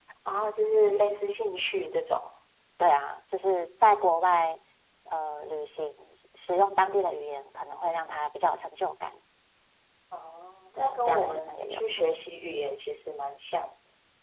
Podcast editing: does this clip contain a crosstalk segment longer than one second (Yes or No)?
Yes